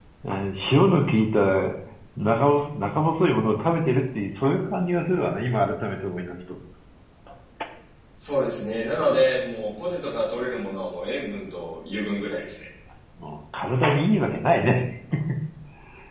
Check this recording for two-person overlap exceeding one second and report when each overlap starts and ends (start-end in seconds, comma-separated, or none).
none